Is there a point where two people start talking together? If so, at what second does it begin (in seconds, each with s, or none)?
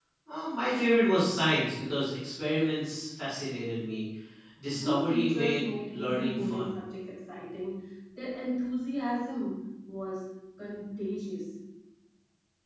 4.8 s